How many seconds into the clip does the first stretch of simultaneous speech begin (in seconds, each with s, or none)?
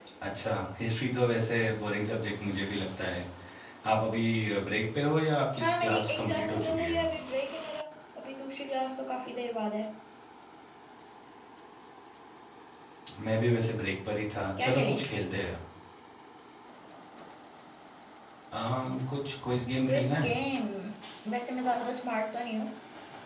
5.6 s